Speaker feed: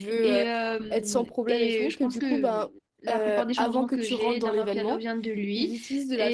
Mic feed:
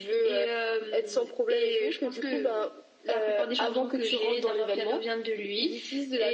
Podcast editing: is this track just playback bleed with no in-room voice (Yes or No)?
Yes